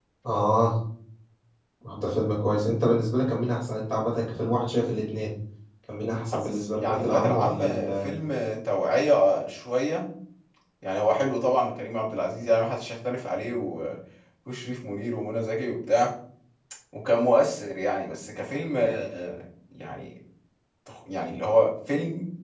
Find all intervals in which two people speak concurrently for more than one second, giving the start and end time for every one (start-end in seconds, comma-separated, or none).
6.3-8.1